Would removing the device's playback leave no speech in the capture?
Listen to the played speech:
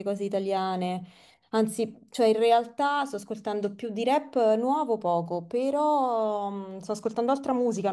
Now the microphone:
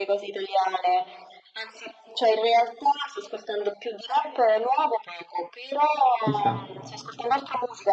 No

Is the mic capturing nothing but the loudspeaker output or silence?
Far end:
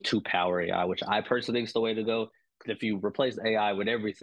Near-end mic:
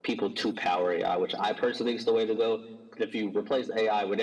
Yes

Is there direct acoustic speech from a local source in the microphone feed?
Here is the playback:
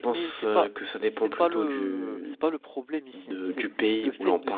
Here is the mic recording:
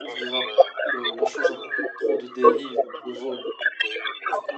Yes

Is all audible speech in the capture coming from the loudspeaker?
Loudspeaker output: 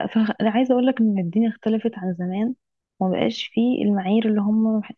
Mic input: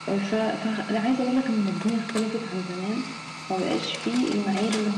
Yes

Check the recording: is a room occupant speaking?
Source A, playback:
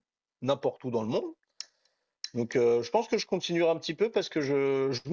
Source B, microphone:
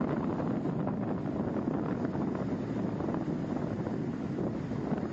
No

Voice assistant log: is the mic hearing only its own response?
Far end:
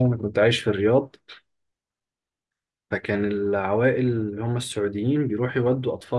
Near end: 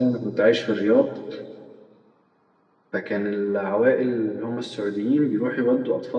Yes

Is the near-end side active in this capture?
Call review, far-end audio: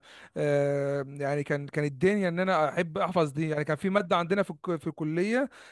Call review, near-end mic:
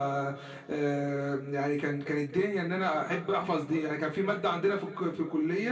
No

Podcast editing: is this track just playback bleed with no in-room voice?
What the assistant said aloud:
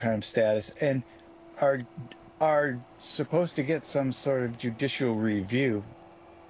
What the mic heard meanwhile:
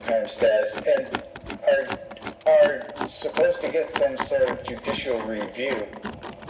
Yes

